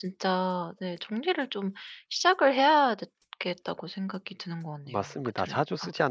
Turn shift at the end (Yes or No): Yes